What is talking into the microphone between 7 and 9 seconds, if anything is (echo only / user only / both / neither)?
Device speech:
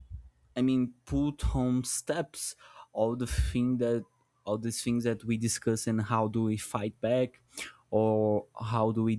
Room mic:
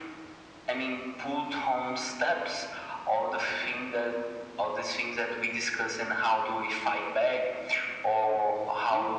both